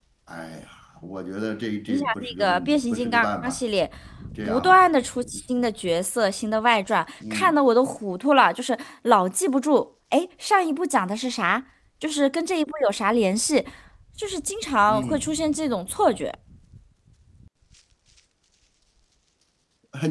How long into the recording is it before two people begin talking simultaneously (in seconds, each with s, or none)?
1.9 s